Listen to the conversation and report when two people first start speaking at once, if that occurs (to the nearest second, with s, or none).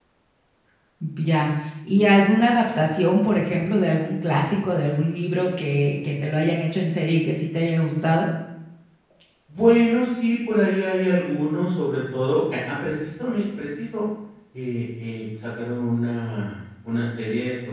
none